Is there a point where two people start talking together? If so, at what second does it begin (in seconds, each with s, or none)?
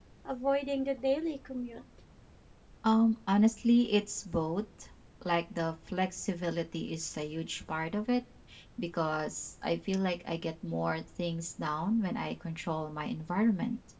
none